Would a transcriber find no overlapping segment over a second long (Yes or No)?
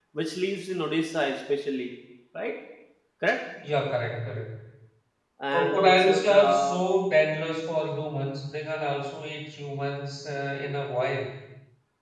No